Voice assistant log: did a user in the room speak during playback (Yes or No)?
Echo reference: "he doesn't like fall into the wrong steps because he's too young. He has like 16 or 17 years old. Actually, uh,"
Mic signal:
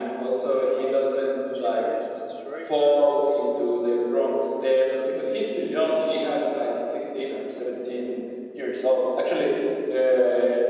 Yes